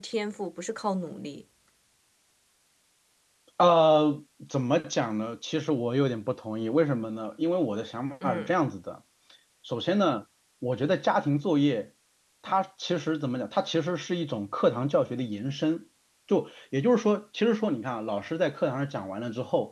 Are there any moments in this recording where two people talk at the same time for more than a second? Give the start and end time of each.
none

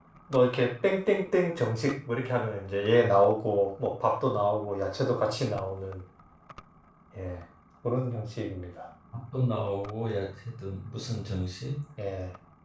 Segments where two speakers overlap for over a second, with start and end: none

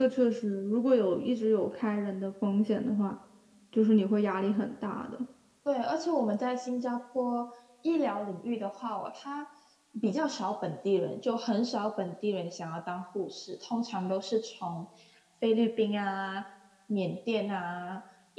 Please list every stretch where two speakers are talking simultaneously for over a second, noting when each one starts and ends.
none

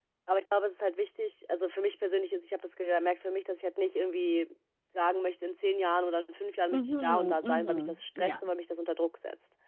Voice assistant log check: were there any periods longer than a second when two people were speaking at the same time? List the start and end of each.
6.7-8.4

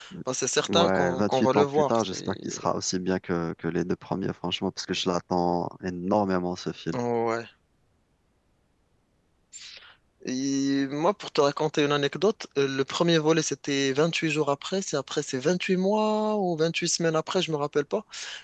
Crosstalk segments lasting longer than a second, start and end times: 0.7-2.6

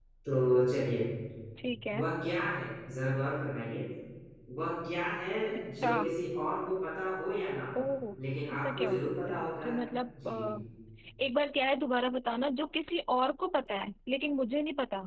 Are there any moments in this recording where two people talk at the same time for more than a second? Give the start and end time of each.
8.5-9.8

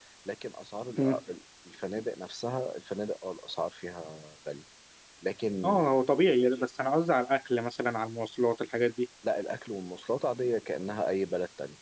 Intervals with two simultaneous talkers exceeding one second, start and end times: none

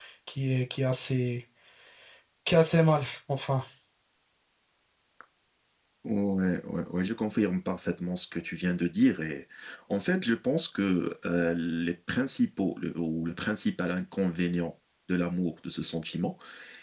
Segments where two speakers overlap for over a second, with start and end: none

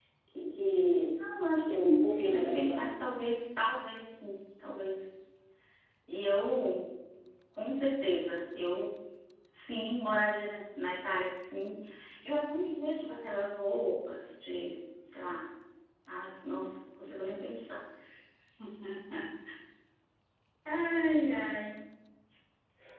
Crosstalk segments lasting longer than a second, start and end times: 1.7-3.0

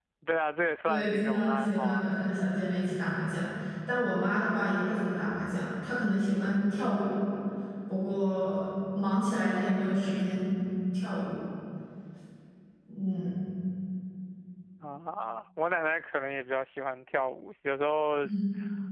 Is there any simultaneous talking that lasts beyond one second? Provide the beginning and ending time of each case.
0.8-2.1

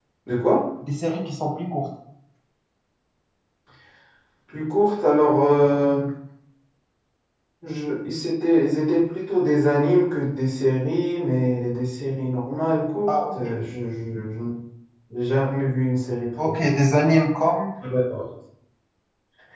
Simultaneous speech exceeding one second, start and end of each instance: none

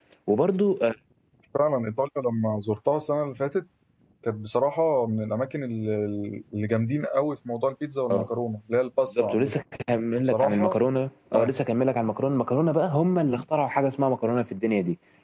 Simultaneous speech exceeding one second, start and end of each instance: none

